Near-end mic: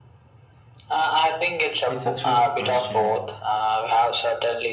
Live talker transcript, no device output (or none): It's a tricky question.